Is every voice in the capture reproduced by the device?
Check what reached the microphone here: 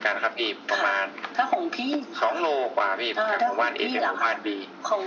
Yes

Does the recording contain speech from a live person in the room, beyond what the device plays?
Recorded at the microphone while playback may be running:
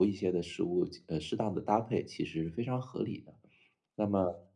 Yes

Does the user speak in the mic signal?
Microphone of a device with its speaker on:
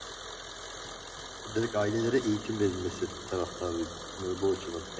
Yes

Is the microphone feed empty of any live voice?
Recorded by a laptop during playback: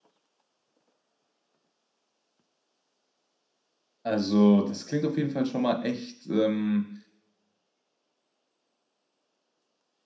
No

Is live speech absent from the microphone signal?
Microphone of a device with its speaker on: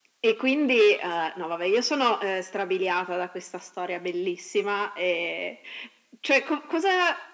Yes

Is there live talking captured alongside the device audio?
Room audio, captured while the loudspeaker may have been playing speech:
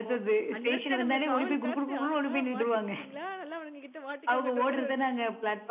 Yes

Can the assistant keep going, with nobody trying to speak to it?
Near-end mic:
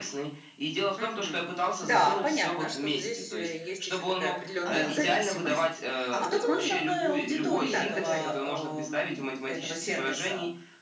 No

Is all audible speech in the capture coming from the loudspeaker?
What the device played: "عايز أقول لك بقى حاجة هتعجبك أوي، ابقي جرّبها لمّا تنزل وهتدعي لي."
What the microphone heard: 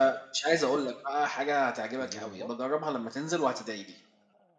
No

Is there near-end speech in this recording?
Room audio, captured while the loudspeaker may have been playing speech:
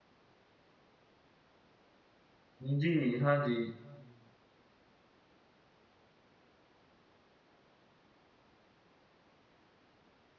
Yes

